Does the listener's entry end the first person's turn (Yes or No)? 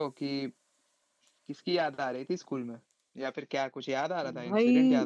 Yes